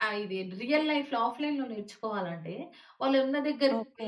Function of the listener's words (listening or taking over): listening